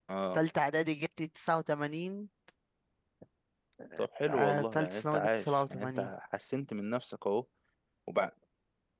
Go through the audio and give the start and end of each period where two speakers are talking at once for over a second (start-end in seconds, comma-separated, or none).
4.3-6.1